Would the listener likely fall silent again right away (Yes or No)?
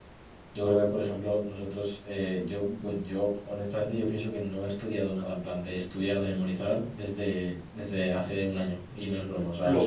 No